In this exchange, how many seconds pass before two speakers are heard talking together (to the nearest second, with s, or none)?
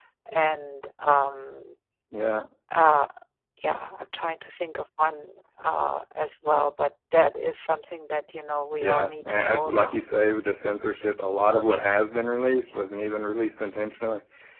9 s